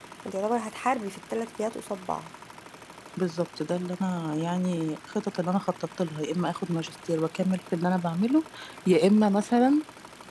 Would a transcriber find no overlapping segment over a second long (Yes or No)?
Yes